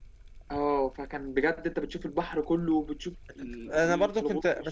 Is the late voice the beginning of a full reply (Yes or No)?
Yes